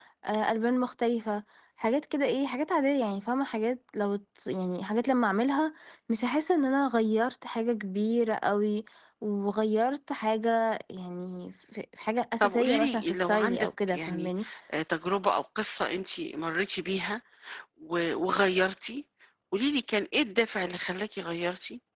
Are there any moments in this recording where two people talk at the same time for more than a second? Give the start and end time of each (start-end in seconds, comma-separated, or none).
12.4-14.3